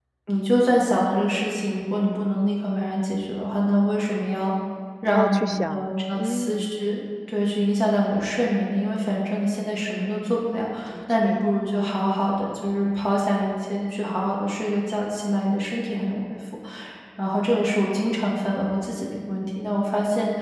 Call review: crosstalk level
present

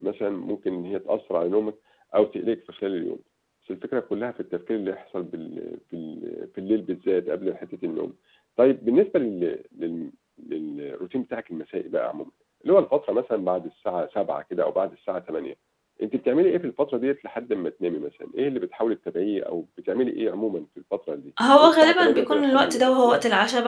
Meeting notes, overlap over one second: present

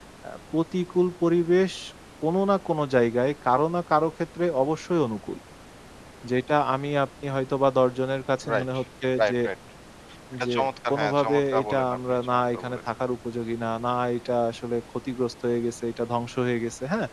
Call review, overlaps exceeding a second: present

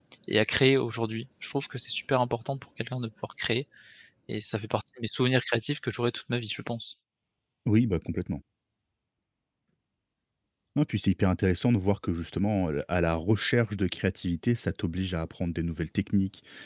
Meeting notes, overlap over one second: none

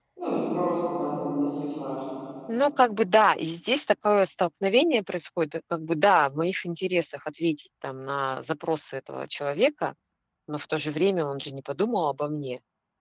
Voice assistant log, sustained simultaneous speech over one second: none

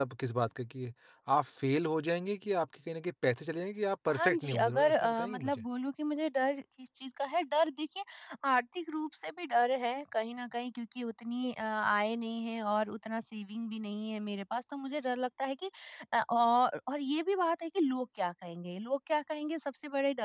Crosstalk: present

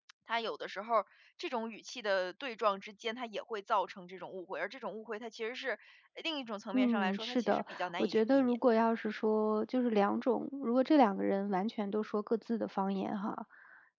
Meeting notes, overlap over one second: present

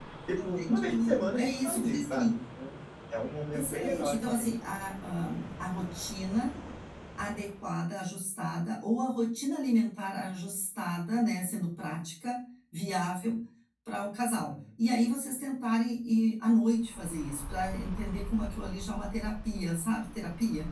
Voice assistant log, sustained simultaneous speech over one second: present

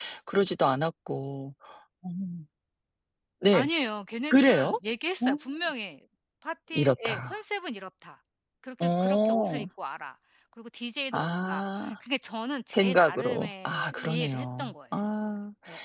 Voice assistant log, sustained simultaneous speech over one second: present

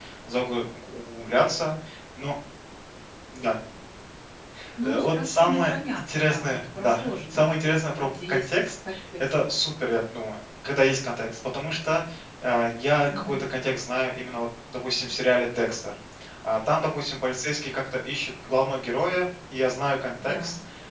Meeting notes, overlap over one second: present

